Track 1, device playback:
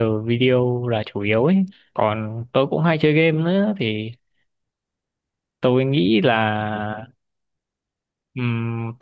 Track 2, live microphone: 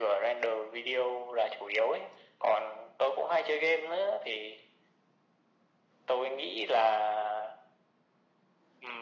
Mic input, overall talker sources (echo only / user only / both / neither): echo only